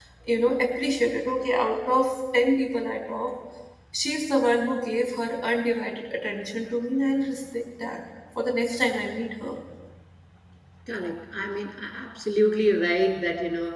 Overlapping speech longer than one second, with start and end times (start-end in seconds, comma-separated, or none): none